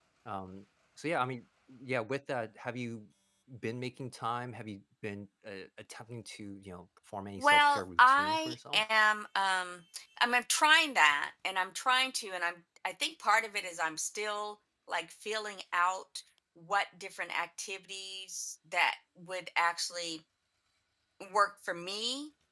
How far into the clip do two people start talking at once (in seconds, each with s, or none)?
7.4 s